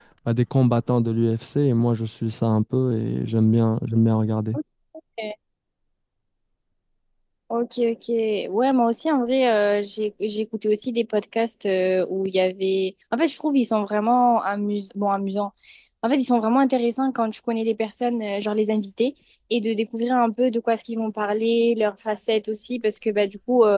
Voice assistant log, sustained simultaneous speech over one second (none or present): none